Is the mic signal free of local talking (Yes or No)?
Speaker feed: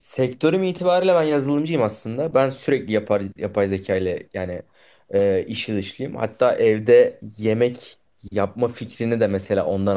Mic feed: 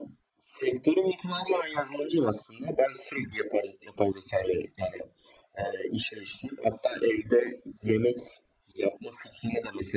Yes